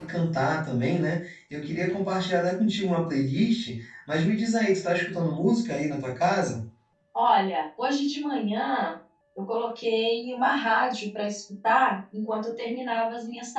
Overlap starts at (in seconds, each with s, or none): none